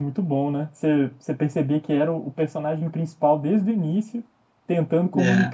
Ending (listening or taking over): listening